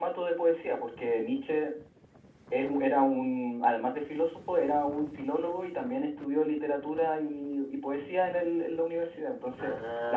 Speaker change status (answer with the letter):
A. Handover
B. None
B